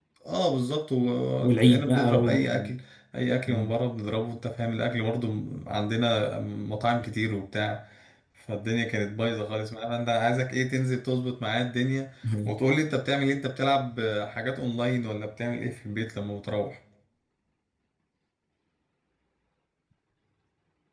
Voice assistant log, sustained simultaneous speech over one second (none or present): present